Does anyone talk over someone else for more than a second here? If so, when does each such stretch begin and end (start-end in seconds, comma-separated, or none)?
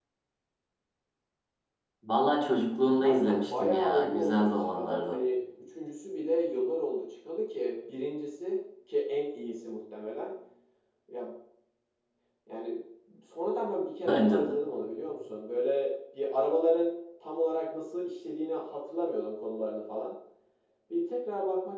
3.0-5.2